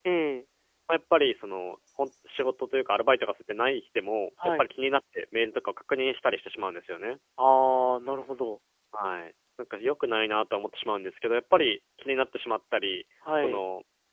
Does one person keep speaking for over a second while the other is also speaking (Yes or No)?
No